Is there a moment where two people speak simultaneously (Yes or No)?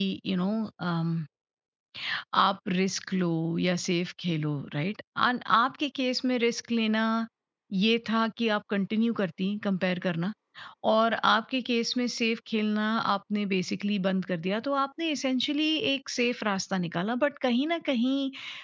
No